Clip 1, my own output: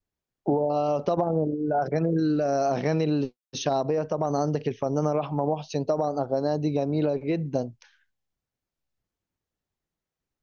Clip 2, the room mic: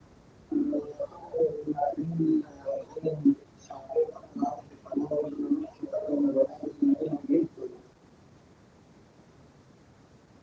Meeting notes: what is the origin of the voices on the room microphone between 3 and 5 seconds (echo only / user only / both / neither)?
echo only